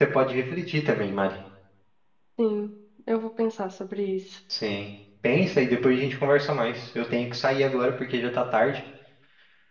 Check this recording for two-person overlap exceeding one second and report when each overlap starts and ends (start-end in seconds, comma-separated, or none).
none